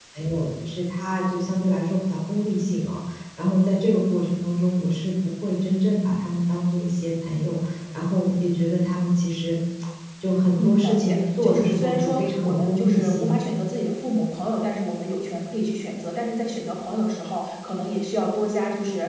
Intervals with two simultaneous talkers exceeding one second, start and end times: 10.6-13.3

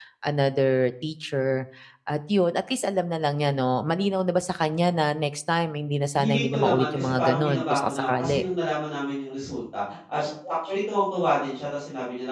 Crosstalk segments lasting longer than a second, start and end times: 6.1-8.4

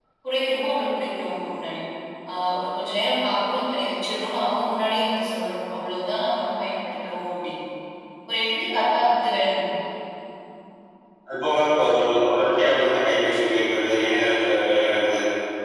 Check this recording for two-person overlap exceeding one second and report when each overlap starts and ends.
none

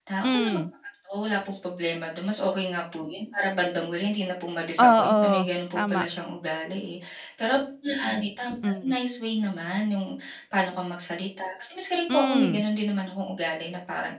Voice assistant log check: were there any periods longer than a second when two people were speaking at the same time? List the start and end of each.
4.8-6.1

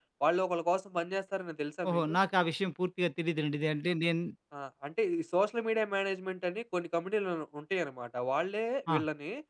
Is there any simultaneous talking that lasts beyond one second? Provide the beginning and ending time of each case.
none

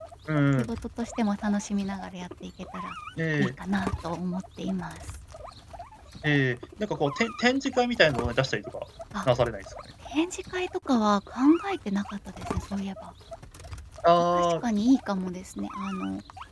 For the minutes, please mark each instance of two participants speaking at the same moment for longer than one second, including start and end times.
none

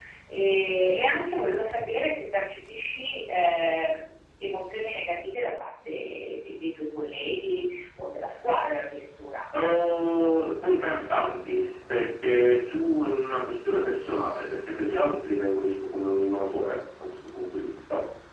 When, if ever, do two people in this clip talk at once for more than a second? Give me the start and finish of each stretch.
none

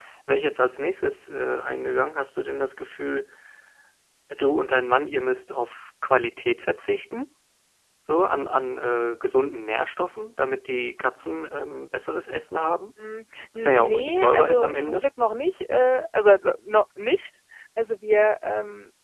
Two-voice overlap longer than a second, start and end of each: 13.6-15.0

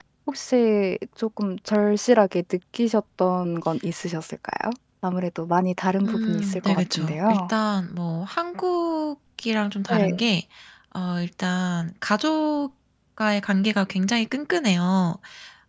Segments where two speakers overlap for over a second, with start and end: 6.0-7.5

